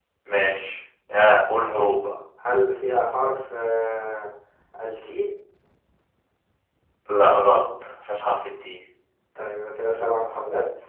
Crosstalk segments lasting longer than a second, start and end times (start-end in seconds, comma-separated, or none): none